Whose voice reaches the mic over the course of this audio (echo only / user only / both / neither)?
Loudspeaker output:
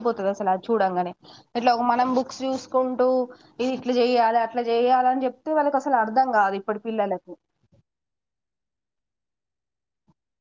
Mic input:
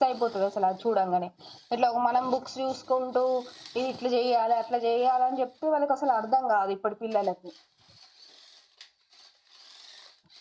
echo only